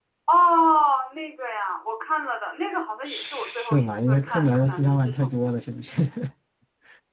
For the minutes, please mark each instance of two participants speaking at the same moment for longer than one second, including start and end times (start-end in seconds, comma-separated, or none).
3.0-5.3